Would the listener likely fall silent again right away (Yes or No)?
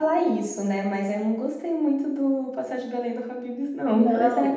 No